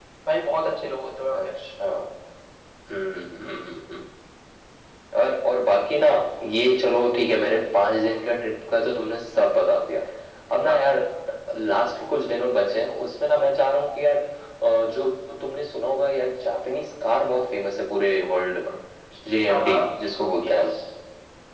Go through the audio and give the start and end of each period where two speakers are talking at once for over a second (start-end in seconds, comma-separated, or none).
none